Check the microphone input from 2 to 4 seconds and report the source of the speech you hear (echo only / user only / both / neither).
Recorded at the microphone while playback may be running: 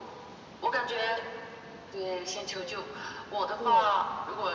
both